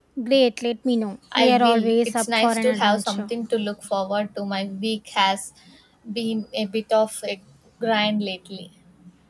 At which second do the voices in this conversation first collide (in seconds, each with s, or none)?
1.3 s